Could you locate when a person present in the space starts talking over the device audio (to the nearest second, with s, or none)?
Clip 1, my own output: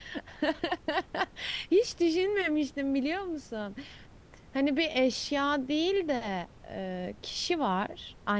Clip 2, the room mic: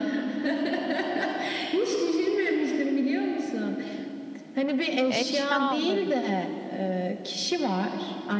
5 s